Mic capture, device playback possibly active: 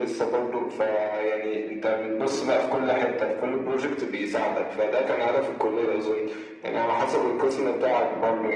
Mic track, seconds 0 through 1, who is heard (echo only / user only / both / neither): echo only